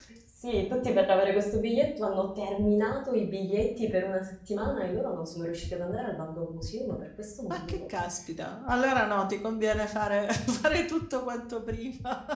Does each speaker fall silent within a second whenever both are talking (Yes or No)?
Yes